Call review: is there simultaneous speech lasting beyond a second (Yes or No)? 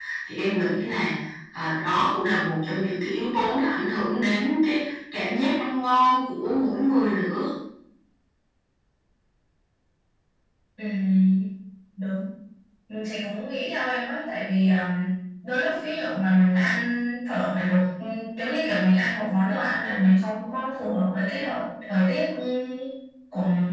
No